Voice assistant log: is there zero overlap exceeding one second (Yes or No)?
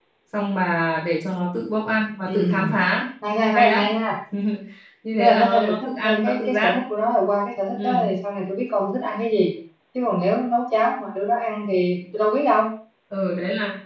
No